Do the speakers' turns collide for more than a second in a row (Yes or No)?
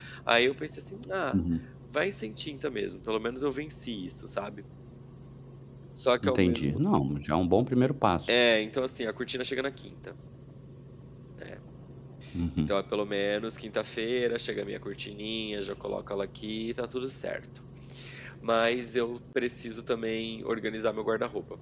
No